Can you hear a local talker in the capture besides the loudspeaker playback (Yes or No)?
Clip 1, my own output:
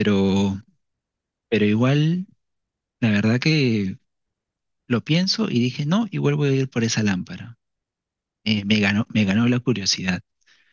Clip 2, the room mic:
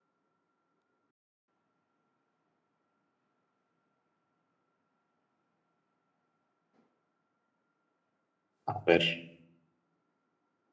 Yes